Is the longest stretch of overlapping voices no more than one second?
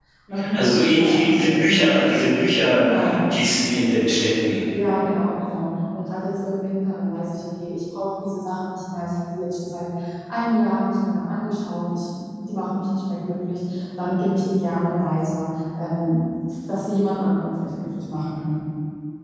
No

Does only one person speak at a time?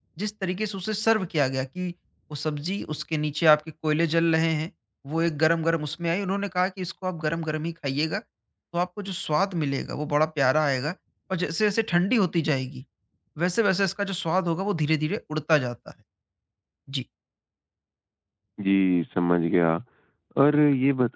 Yes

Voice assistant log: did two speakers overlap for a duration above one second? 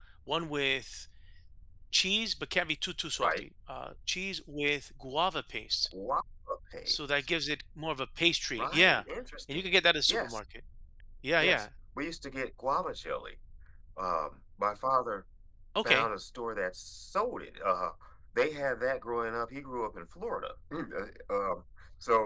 No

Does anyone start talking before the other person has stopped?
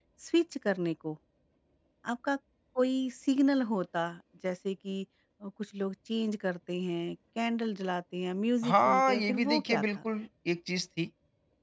Yes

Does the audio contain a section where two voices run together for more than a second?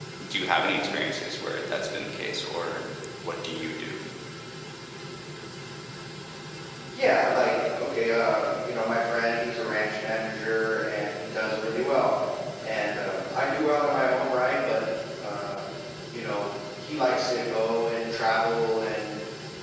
No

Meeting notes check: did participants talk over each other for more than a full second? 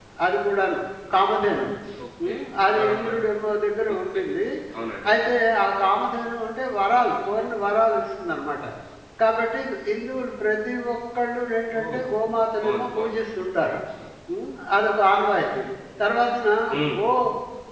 No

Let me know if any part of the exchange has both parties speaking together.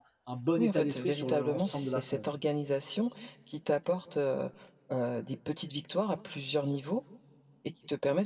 Yes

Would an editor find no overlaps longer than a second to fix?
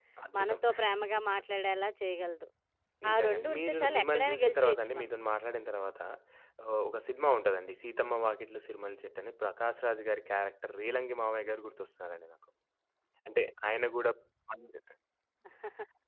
No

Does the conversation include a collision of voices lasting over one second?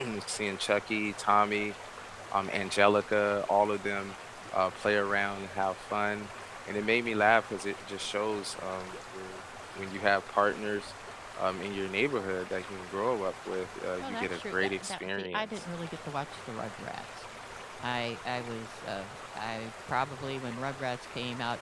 Yes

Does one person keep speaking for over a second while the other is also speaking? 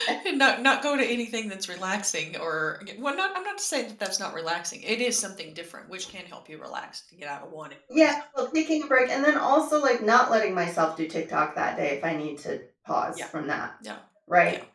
No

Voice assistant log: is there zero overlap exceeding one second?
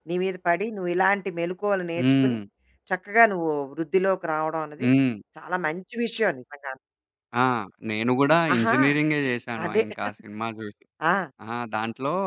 Yes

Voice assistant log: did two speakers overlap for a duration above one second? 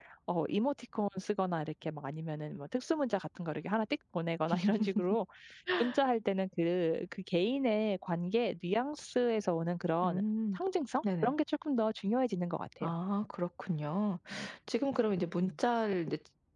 No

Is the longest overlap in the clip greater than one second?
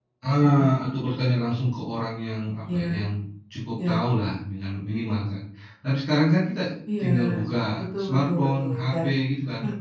Yes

